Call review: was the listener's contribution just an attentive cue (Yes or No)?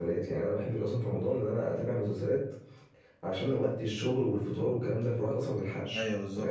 No